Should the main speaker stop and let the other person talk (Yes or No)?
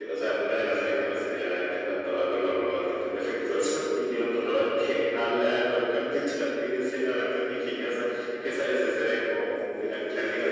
Yes